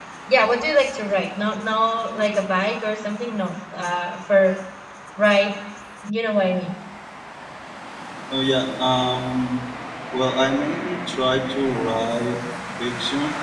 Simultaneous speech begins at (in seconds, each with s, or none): none